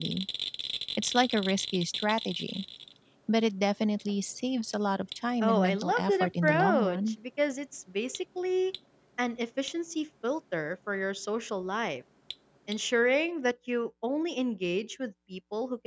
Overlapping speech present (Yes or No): Yes